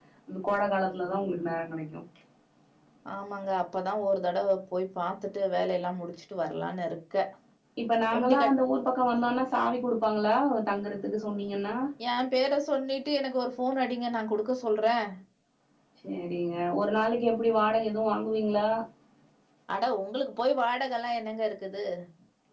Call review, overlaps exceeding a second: none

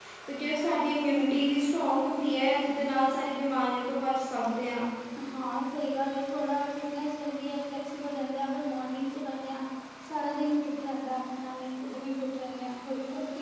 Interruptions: none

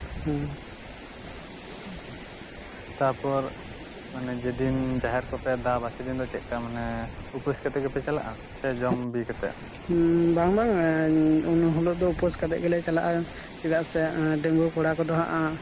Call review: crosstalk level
none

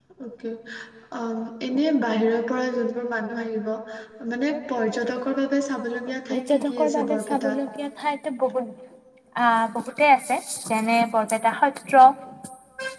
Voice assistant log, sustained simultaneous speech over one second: present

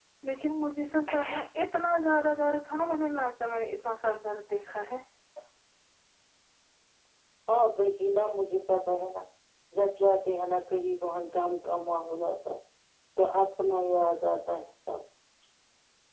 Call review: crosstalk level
none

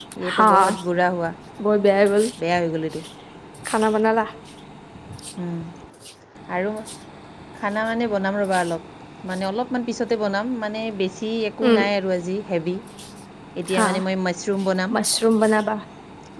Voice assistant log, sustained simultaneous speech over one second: none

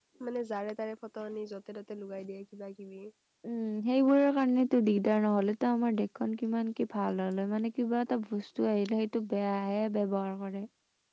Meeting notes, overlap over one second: none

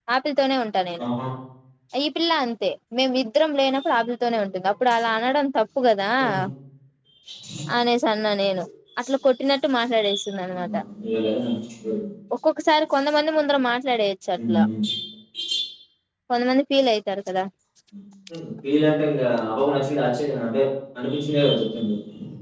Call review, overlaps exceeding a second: none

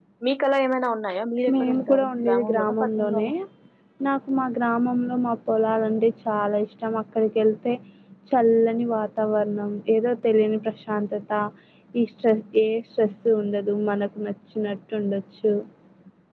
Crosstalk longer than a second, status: present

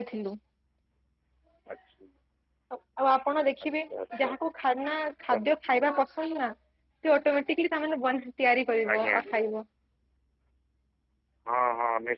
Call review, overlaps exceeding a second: none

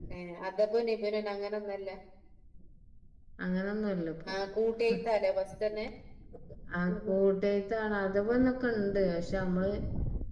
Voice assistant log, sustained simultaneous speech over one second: none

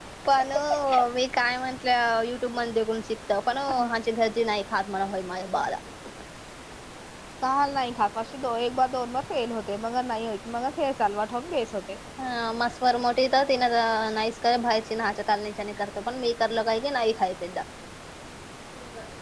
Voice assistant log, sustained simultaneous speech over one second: none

